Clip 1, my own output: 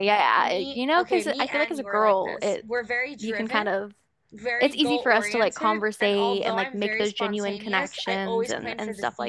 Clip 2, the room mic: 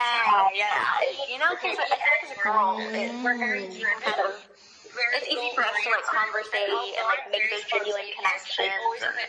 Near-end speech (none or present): present